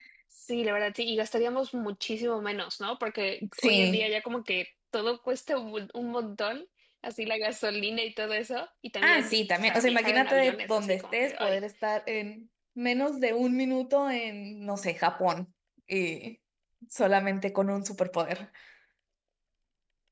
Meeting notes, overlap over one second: present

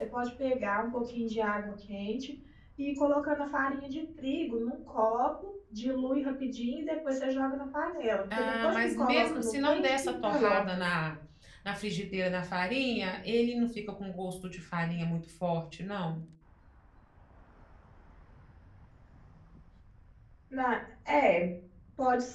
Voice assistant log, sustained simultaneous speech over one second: present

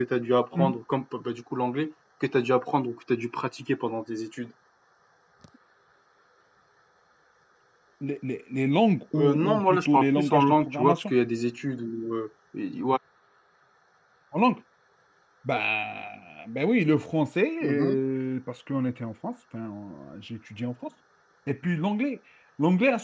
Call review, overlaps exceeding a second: present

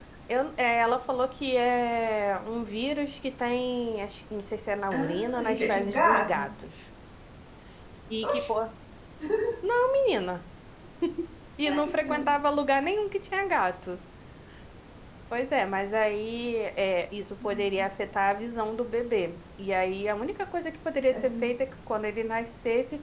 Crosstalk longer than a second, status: present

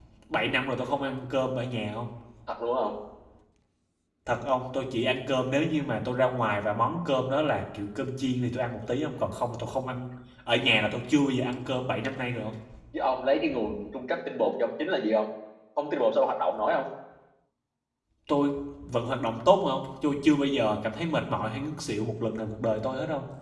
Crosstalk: none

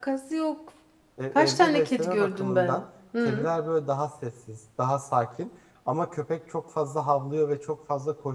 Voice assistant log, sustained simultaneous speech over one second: present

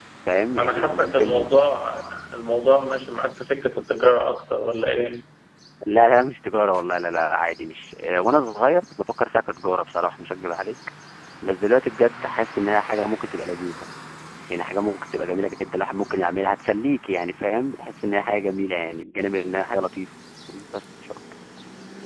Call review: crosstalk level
present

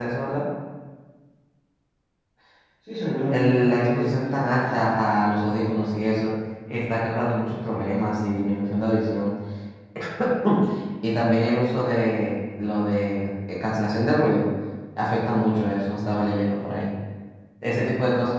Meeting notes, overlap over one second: present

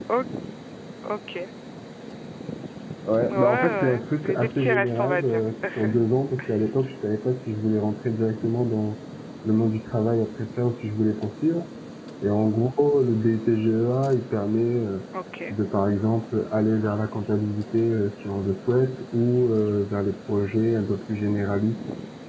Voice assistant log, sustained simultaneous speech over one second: present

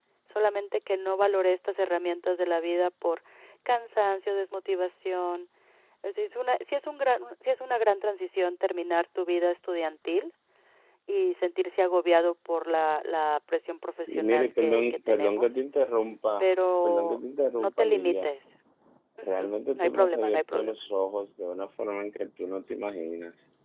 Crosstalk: present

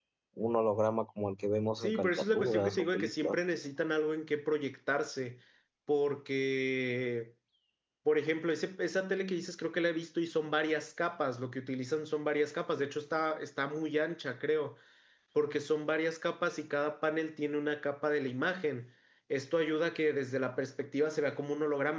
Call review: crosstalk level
present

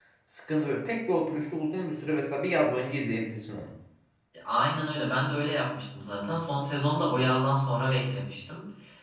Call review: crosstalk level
none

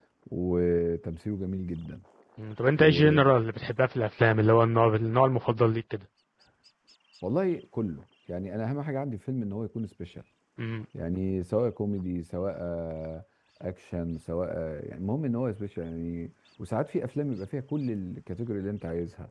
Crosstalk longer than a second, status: none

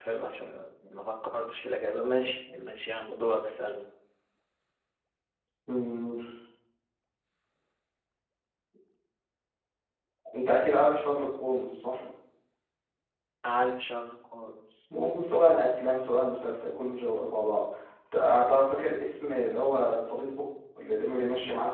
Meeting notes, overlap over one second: none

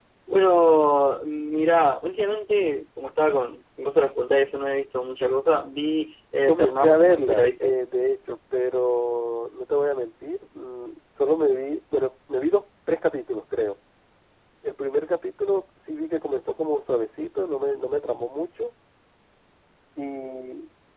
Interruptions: present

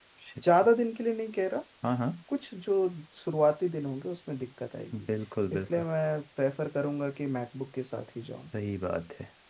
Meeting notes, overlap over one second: none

